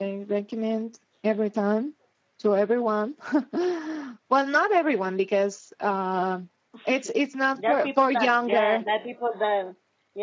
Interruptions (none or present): present